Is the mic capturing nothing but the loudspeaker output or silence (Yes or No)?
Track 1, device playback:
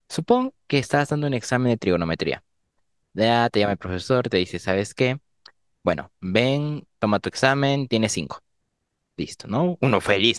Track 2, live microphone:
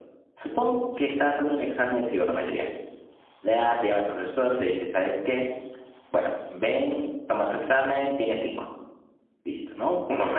Yes